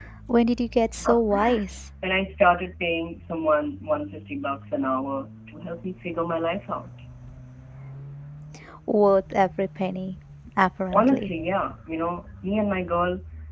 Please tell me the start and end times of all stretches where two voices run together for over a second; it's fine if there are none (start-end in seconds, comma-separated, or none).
none